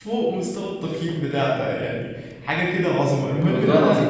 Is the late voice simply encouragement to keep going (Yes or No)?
Yes